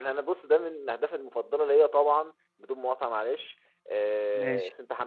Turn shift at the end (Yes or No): No